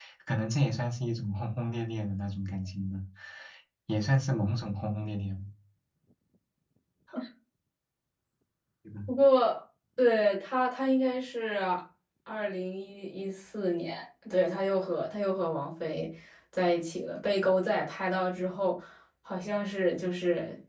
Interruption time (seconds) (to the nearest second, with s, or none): none